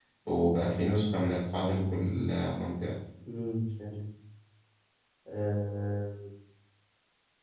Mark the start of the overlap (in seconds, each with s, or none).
none